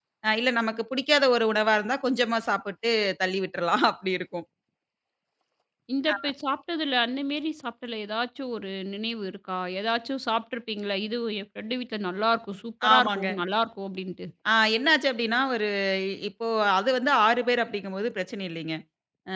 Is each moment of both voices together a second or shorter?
Yes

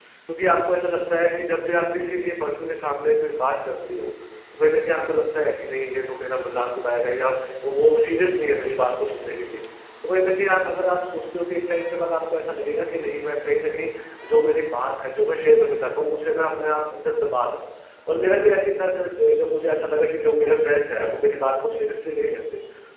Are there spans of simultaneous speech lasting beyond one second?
No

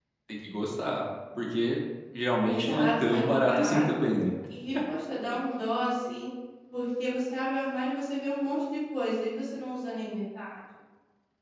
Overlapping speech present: Yes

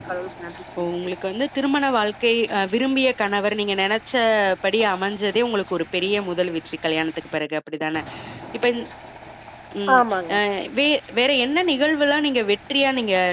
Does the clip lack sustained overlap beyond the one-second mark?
Yes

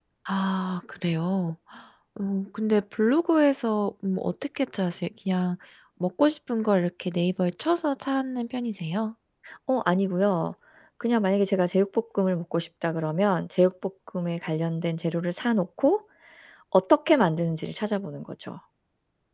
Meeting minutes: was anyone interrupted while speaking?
No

